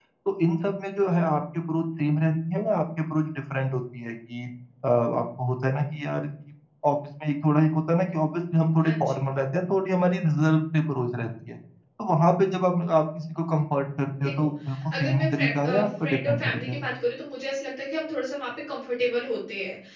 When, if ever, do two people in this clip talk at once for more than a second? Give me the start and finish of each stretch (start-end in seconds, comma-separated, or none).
14.9-16.9